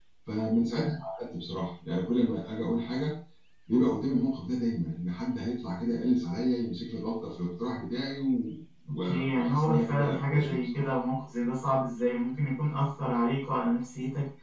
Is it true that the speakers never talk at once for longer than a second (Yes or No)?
No